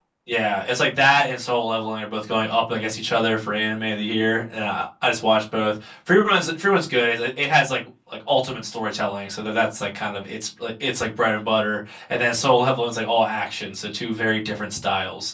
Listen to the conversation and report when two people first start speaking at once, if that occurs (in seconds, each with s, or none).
none